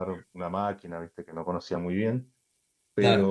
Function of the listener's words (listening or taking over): listening